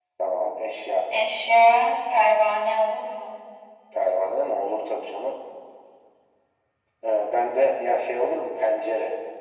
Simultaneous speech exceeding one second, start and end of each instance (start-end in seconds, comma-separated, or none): none